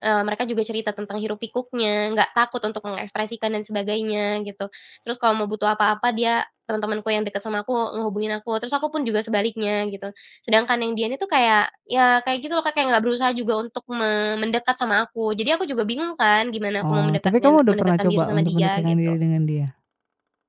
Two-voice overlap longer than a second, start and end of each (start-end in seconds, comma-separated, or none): 16.9-19.1